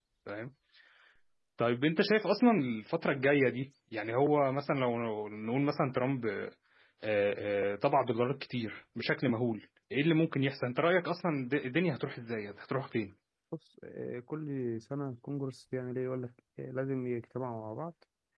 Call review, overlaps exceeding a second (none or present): none